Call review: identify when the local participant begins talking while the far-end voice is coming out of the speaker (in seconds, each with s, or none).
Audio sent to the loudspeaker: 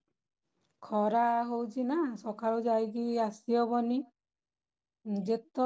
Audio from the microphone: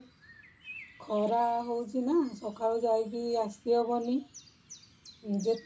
none